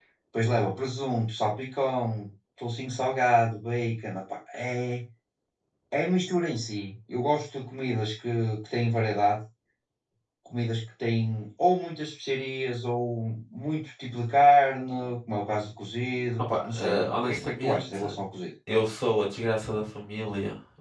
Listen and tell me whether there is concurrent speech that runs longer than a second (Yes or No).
Yes